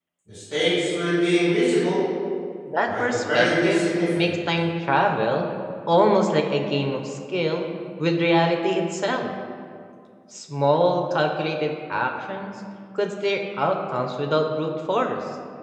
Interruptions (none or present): present